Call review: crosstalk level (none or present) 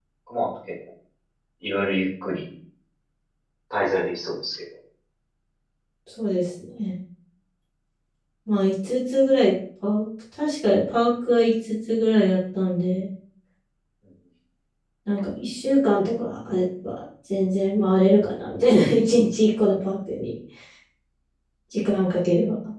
none